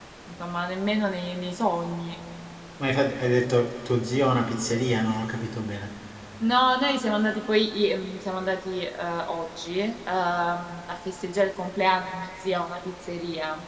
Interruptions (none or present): none